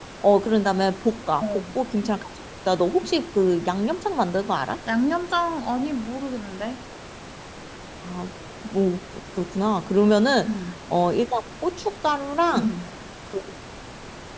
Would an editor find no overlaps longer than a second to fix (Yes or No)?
Yes